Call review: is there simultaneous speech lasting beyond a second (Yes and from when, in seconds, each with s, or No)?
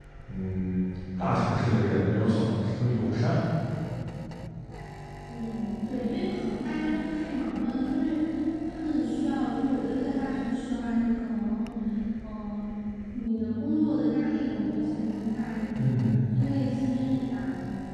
No